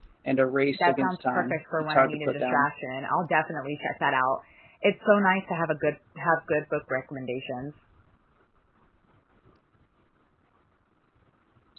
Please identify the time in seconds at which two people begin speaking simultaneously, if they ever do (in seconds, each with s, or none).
0.8 s